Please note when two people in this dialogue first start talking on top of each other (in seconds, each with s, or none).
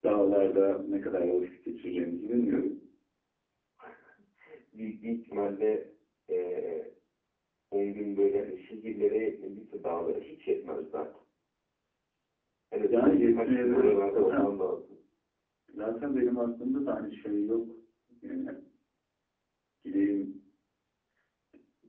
12.9 s